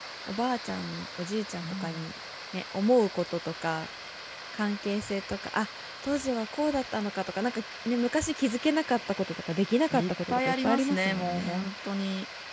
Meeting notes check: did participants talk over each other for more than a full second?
Yes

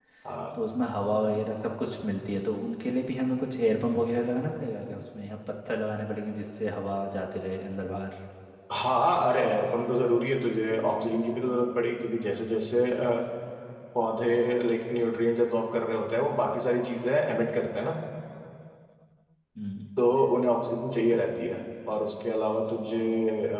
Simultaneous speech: No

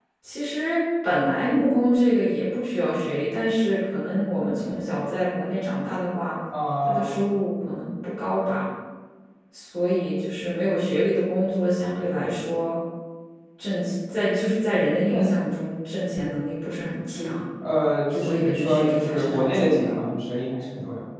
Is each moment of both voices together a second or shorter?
No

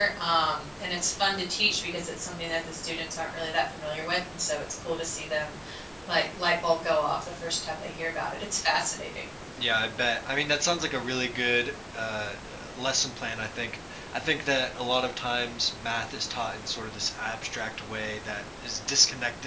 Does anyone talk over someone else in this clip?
No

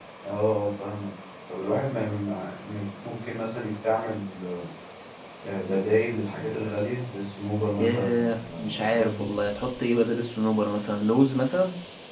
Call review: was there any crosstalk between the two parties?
Yes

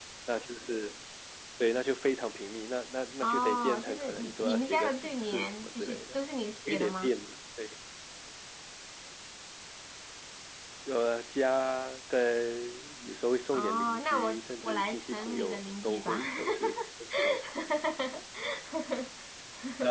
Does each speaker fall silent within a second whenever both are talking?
No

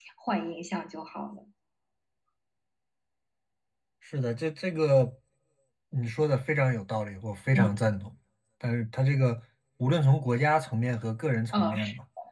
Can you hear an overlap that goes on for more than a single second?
No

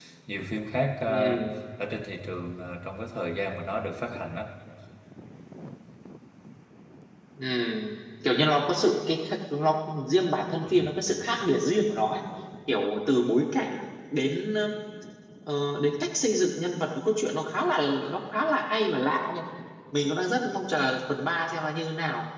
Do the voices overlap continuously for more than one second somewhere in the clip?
No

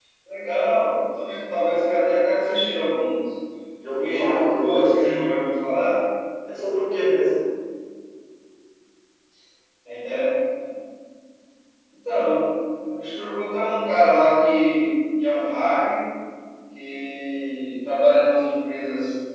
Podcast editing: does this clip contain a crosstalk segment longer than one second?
Yes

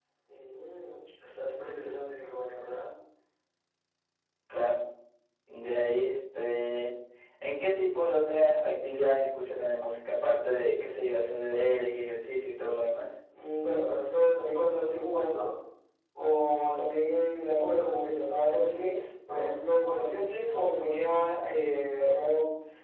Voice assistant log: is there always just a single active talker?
Yes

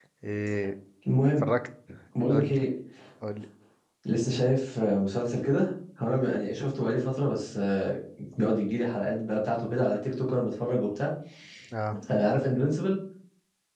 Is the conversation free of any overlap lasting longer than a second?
Yes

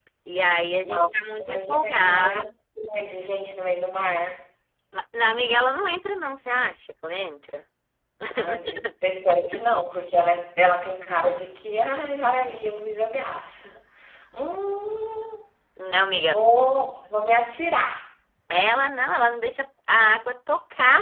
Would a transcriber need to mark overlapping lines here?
Yes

